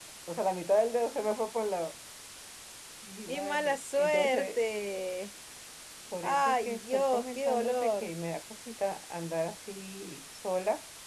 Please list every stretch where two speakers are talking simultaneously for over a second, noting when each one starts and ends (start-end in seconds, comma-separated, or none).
3.3-4.6, 6.2-8.1